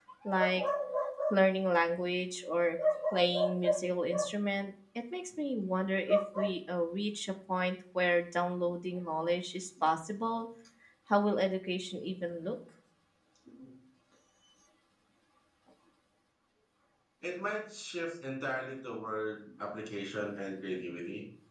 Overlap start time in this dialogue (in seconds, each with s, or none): none